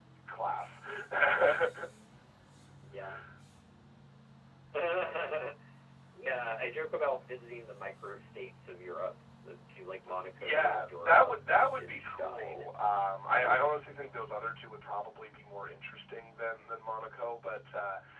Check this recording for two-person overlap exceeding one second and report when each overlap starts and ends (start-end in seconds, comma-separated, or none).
10.4-12.7